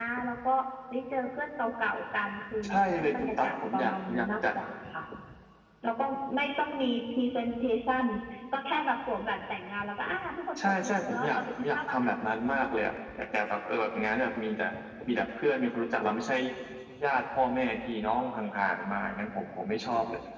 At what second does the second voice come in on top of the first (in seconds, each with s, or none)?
2.6 s